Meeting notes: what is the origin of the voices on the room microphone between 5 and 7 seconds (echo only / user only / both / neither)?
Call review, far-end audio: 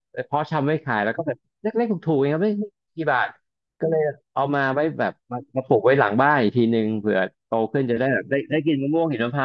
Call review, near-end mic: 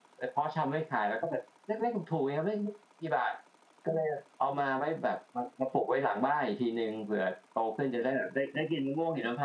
echo only